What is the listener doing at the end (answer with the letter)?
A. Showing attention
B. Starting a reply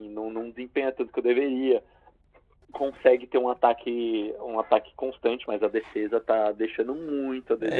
B